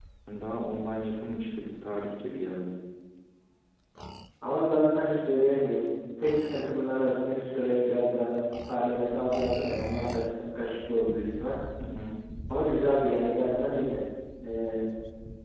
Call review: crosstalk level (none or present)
none